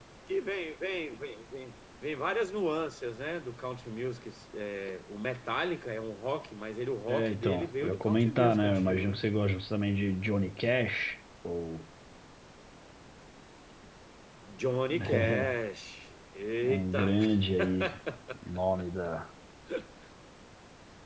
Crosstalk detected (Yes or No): Yes